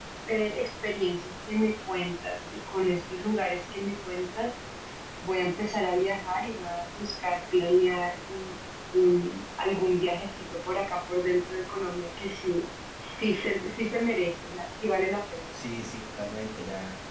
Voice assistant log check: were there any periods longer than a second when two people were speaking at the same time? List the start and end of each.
none

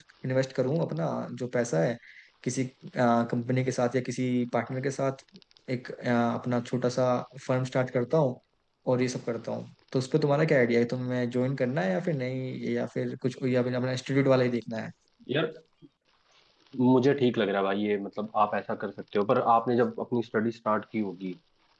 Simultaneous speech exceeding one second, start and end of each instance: none

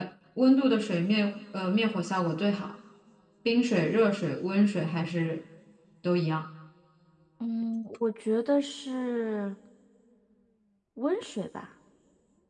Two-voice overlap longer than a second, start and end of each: none

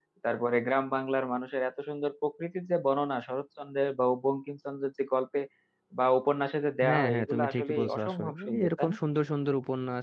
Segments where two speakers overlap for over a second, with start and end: 6.8-9.0

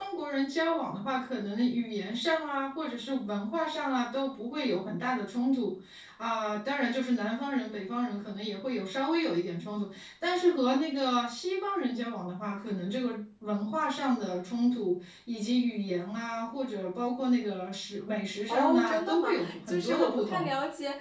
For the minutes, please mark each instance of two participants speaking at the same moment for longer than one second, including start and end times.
18.5-20.5

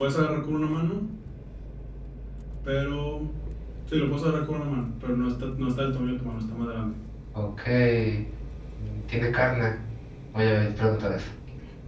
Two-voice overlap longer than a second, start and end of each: none

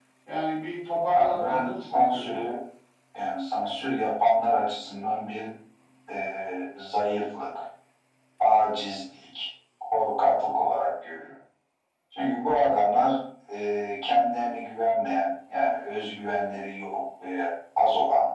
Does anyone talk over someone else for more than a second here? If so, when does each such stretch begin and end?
1.1-2.4

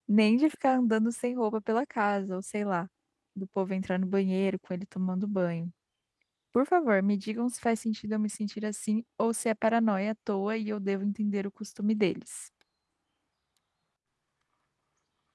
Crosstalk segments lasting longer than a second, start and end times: none

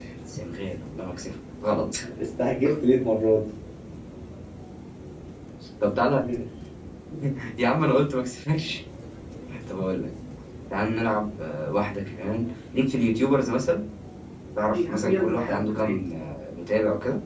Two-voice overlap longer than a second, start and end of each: 14.7-16.0

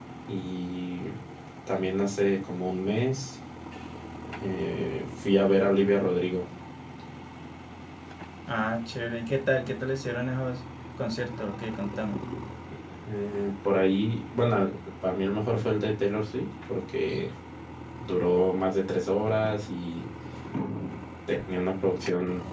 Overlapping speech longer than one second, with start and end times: none

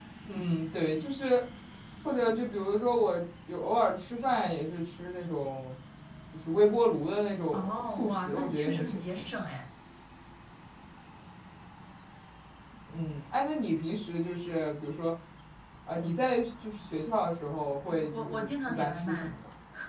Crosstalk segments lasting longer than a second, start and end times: 7.5-9.1, 17.9-19.3

